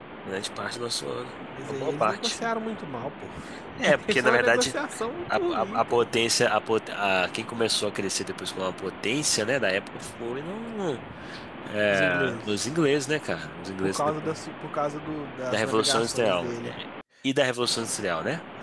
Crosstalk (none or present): present